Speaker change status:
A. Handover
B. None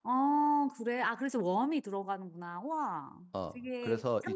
A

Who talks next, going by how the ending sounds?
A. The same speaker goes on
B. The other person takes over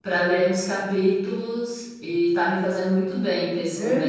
B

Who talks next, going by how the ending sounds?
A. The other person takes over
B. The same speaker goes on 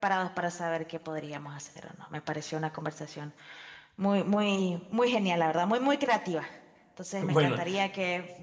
B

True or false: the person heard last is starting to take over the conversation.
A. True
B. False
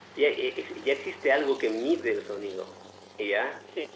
B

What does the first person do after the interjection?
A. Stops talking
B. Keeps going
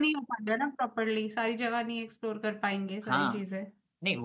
A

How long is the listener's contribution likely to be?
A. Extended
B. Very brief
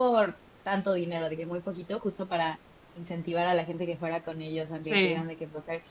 B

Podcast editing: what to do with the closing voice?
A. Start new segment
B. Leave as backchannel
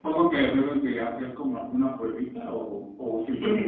A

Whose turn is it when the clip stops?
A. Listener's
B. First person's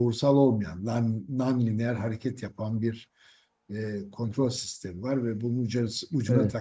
B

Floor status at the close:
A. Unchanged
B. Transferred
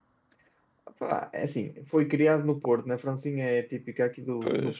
A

